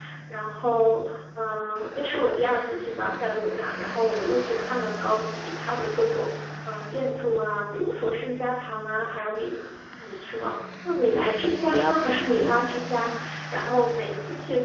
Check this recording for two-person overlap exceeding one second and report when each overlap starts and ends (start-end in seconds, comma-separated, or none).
11.7-13.1